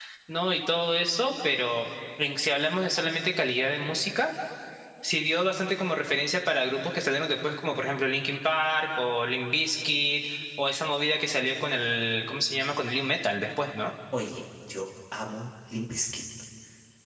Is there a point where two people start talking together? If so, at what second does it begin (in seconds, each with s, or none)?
none